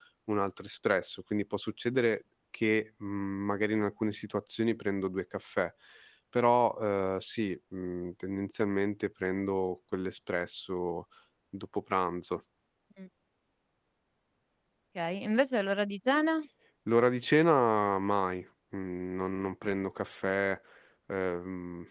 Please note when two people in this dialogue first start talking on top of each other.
none

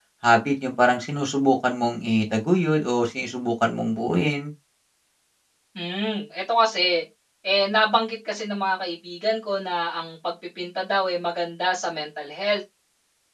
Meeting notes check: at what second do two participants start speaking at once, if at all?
none

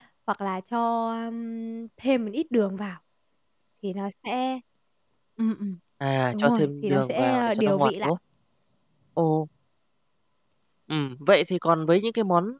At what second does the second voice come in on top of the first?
6.3 s

